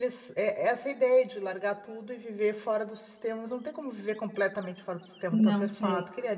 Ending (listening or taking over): listening